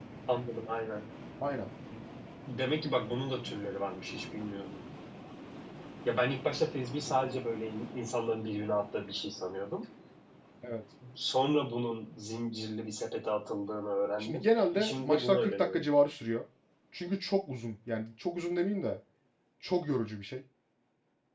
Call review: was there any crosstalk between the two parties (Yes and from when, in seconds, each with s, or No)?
Yes, from 14.2 s